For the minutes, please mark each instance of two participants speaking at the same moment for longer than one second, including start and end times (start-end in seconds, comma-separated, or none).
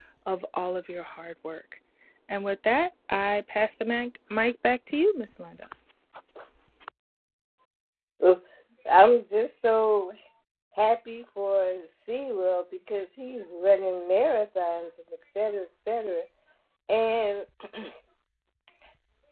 none